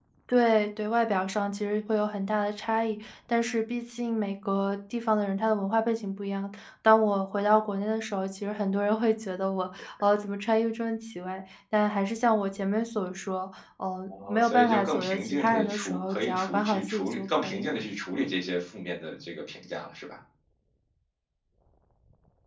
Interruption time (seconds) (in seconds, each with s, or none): 14.1 s